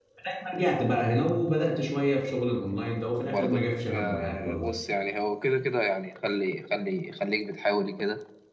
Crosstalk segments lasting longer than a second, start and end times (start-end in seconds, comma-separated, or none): 3.2-4.7